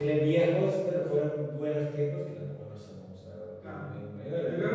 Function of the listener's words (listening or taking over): taking over